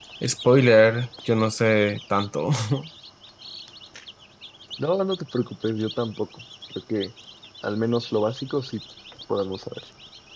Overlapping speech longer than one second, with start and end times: none

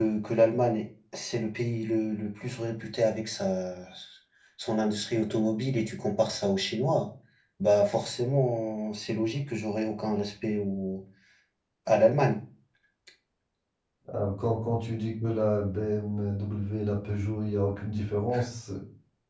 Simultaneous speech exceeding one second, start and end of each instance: none

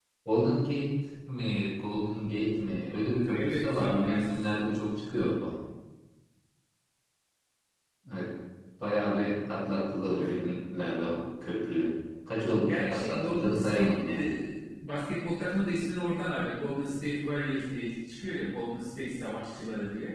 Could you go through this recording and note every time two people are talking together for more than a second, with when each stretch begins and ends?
3.3-4.8, 12.7-14.3

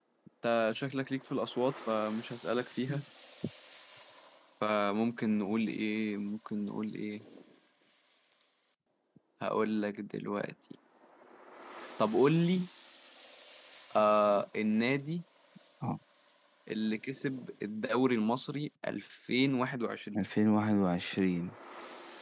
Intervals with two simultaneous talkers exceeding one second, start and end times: none

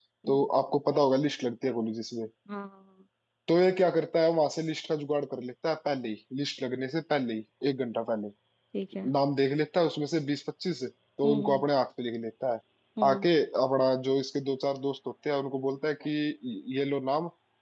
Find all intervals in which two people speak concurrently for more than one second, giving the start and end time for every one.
none

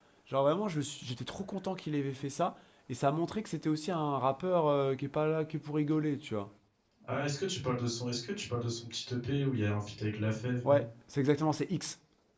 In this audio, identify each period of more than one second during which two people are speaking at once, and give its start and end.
none

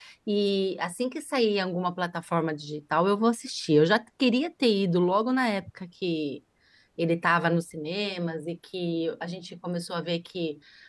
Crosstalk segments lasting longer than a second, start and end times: none

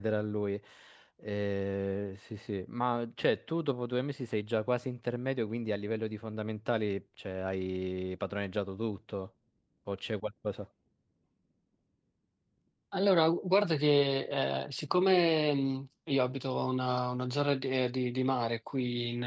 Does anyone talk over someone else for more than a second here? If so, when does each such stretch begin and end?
none

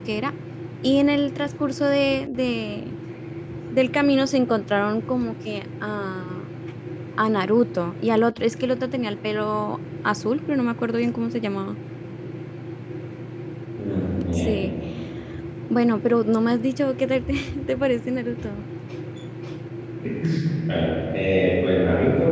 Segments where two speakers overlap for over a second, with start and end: none

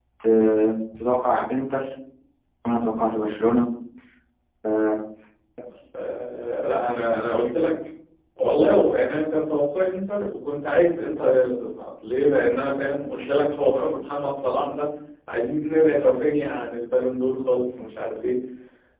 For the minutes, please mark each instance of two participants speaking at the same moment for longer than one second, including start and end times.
none

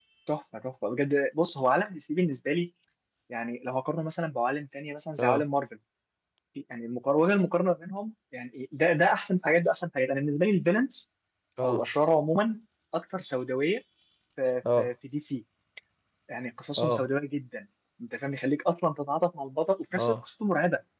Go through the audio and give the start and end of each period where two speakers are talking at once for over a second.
none

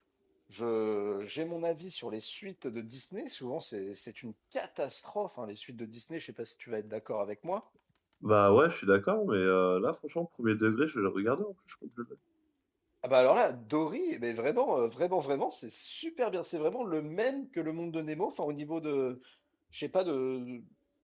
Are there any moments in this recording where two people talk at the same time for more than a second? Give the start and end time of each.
none

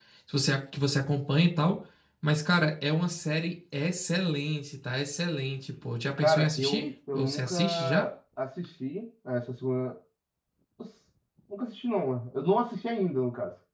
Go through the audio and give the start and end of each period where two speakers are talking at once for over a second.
6.2-8.1

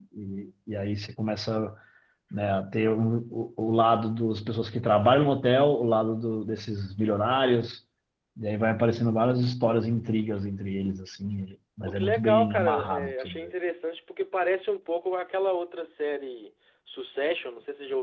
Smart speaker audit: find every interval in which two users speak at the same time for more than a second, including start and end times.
11.8-13.4

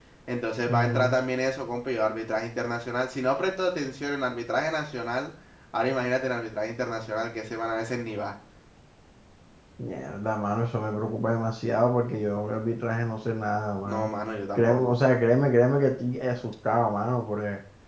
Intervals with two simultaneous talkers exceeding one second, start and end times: none

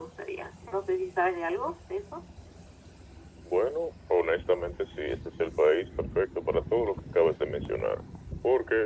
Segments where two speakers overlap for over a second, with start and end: none

